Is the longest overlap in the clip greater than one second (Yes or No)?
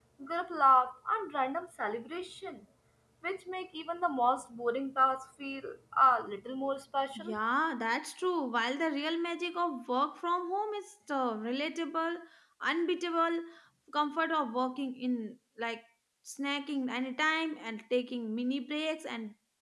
No